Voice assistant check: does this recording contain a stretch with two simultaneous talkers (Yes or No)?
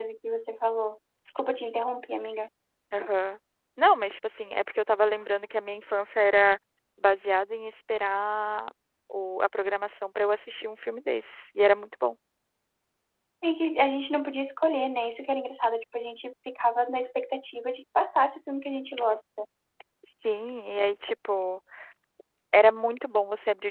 No